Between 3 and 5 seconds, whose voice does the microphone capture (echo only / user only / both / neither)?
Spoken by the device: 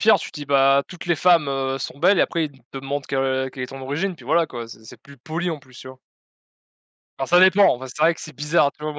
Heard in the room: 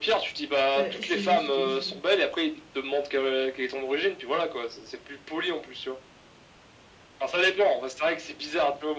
echo only